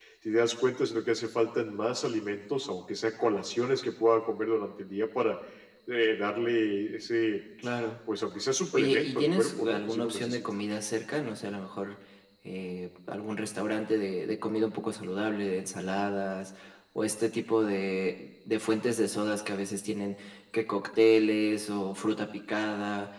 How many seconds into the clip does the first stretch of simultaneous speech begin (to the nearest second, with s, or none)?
9 s